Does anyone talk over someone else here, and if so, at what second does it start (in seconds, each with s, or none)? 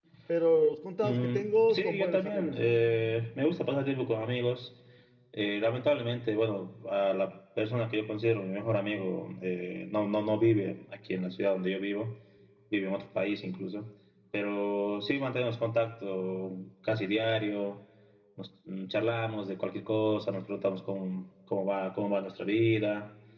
1.0 s